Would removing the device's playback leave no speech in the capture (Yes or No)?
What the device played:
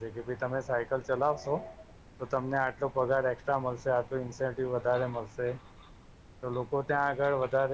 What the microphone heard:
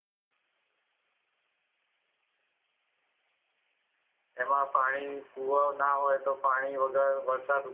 No